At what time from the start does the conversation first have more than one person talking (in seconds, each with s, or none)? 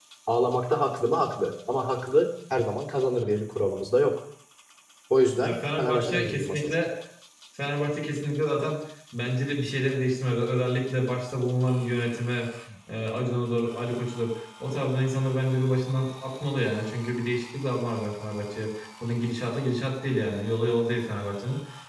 5.4 s